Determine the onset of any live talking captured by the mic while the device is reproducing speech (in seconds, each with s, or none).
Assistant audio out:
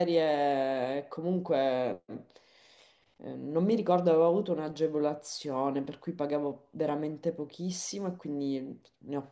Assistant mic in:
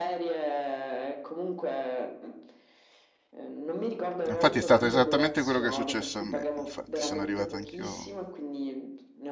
4.3 s